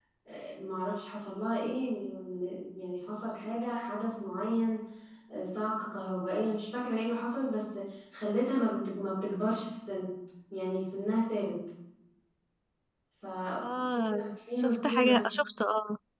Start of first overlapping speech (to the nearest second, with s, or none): 14 s